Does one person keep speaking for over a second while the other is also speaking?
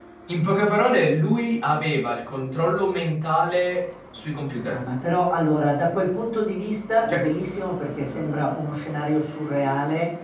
No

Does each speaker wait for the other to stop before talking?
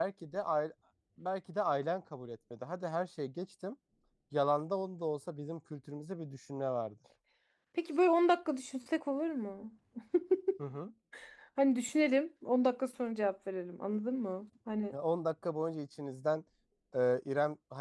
Yes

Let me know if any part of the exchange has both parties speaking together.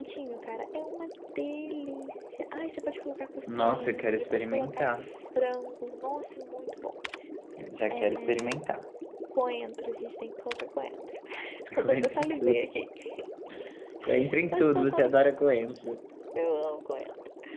Yes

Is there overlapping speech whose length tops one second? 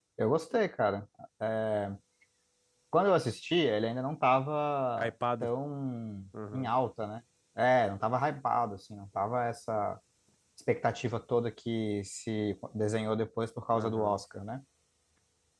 No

